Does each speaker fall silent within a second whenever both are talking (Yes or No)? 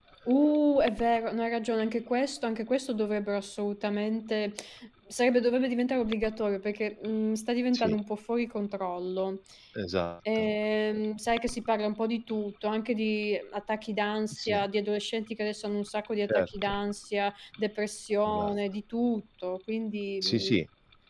Yes